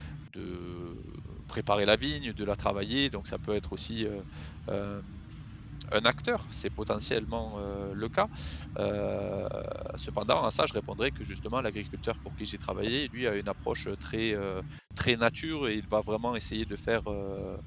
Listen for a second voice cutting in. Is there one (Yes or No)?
No